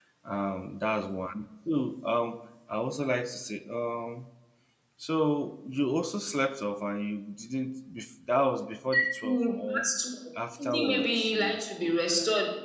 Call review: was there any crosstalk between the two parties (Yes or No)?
Yes